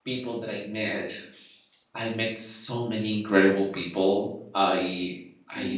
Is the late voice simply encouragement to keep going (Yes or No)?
Yes